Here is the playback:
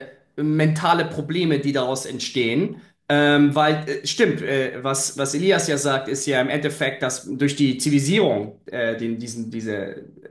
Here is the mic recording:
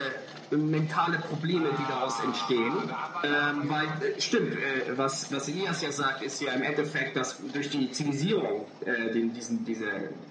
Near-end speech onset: 1 s

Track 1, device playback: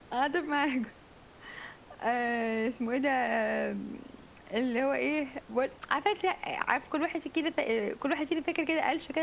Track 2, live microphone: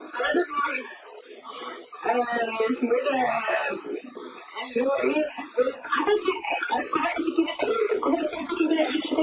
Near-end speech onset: none

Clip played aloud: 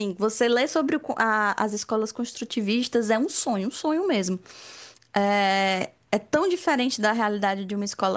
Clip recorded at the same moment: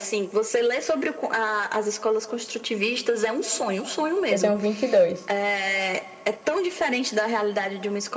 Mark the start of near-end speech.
4 s

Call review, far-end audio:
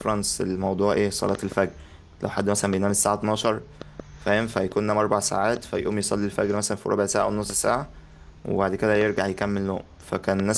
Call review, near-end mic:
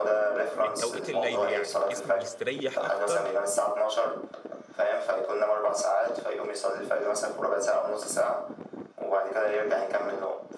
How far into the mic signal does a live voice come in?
1 s

